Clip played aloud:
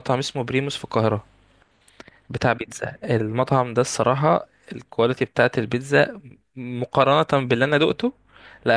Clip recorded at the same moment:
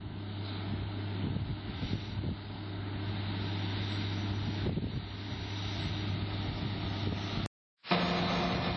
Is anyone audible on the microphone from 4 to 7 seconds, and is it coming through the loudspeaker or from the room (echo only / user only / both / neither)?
neither